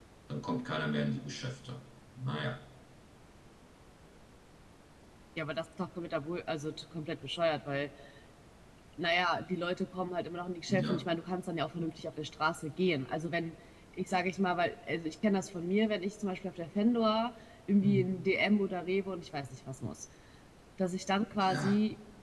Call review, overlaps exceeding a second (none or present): none